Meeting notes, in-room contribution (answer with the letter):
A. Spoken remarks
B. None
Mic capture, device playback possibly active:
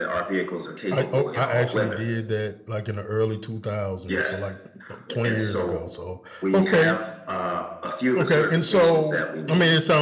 A